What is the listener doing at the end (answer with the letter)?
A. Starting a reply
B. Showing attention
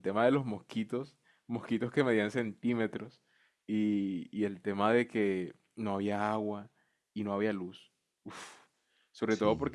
B